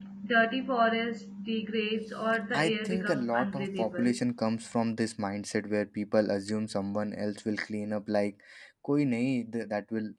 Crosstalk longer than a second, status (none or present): present